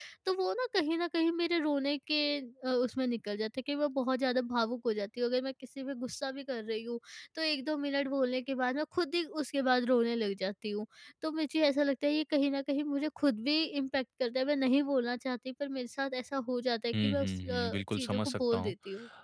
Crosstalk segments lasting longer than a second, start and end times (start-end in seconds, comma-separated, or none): 16.9-18.7